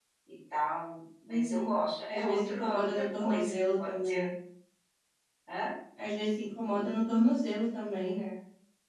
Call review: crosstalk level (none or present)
present